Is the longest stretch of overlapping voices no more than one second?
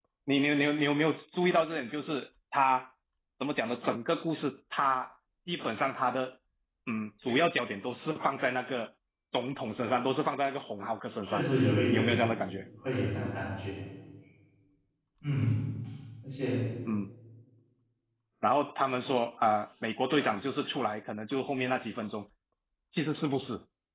Yes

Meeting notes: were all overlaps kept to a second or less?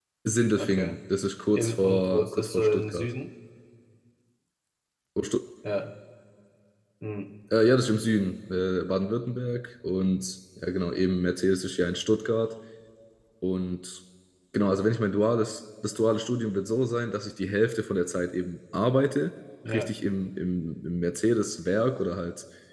No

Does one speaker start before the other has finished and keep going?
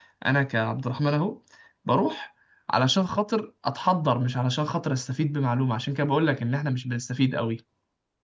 No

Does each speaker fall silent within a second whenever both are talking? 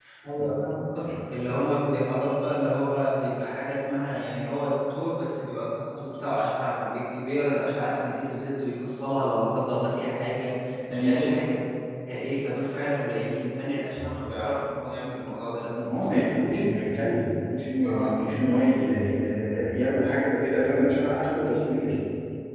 Yes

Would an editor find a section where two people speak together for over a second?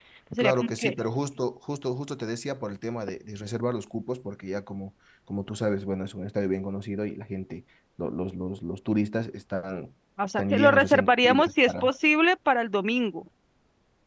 Yes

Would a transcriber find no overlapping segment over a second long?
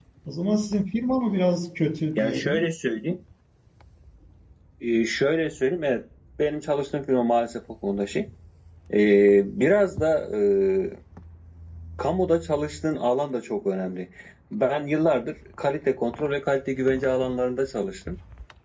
Yes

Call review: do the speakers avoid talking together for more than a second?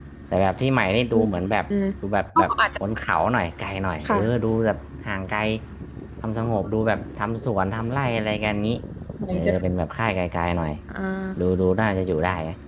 Yes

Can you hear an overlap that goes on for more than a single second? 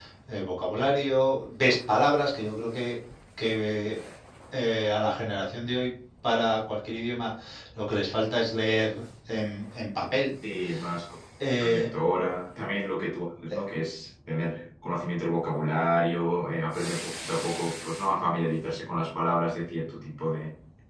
No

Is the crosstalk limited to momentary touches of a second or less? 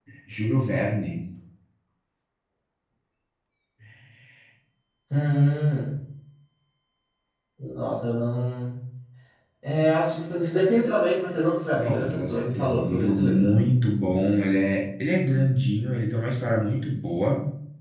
No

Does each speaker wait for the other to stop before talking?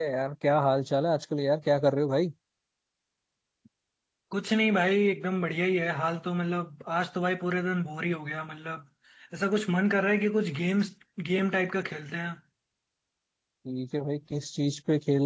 Yes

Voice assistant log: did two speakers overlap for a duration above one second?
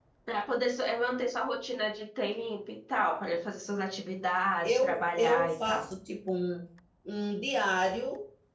Yes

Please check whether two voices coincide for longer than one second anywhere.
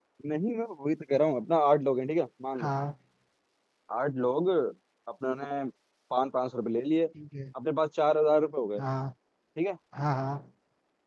No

